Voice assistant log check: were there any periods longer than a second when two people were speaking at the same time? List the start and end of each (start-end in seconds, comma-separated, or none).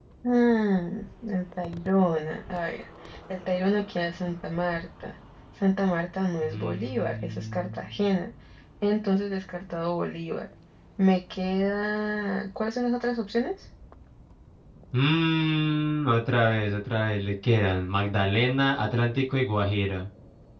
6.4-7.8